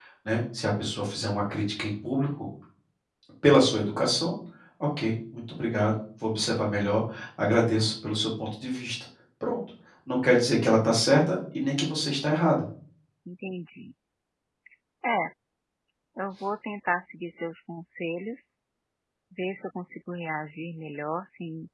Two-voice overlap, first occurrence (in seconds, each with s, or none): none